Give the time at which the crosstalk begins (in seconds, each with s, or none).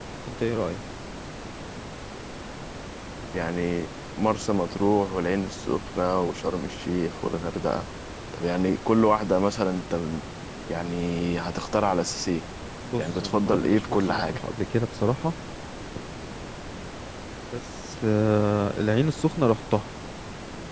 13.0 s